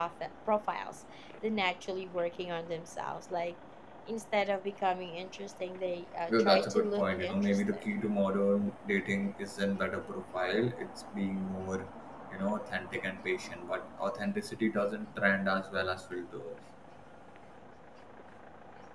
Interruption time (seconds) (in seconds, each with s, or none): 6.3 s